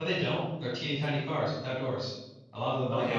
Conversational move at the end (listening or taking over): taking over